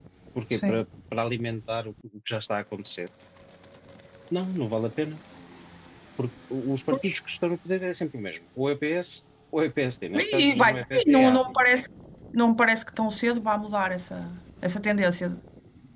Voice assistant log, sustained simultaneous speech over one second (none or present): present